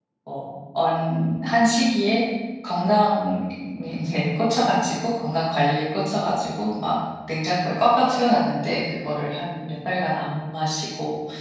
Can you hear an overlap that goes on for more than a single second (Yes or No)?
No